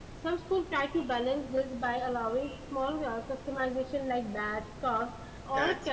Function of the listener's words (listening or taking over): listening